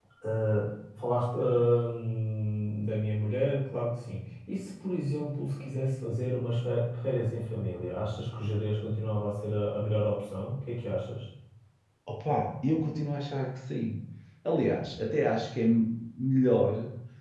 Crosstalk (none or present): none